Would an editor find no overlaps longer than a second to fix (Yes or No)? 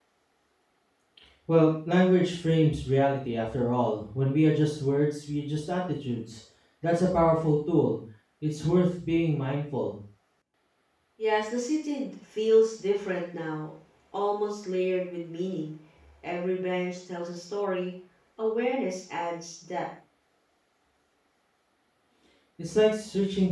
Yes